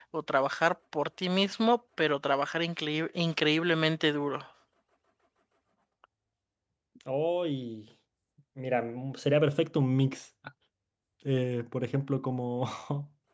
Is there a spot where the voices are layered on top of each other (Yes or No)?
No